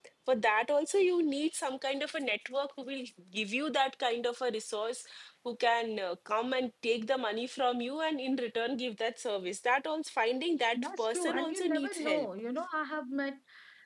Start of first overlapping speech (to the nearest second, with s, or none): 11 s